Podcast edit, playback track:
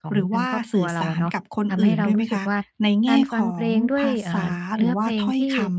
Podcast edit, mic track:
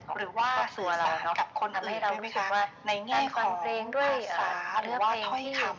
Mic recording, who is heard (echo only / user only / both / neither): echo only